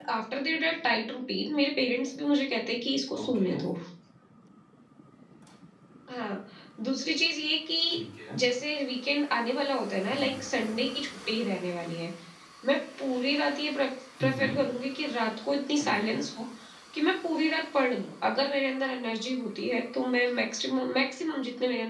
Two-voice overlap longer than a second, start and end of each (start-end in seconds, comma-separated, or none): none